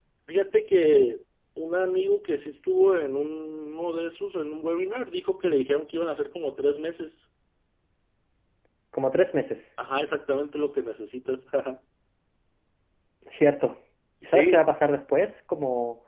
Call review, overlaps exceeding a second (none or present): none